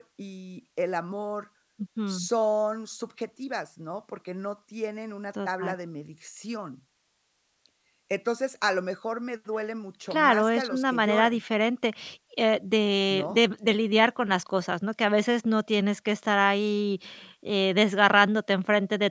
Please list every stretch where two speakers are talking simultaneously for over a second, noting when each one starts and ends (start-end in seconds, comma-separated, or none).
10.1-11.4